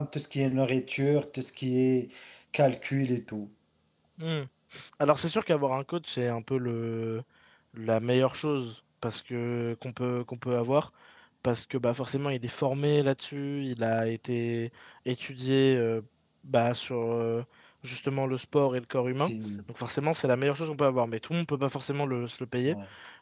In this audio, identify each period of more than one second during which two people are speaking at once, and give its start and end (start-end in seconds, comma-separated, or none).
none